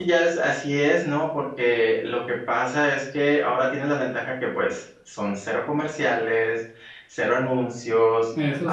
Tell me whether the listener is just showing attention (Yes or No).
Yes